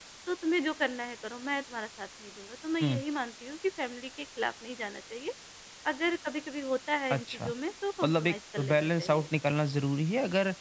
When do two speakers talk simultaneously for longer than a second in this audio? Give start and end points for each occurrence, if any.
8.0-9.3

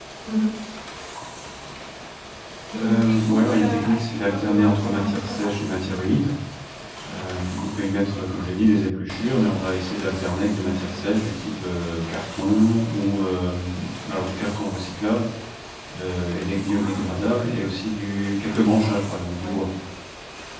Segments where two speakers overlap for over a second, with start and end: 2.7-5.6

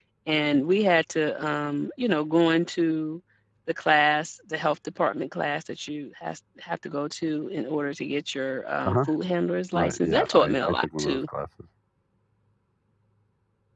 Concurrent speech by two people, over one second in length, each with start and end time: 9.7-11.2

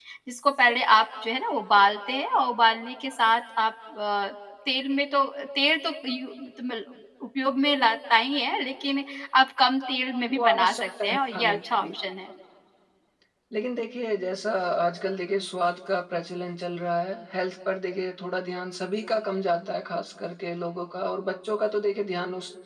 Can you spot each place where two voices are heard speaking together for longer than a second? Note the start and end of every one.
10.3-11.9

